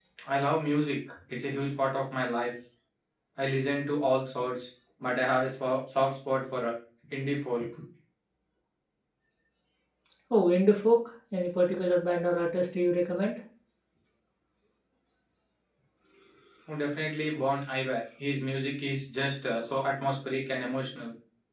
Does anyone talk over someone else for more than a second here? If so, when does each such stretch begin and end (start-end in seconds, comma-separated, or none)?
none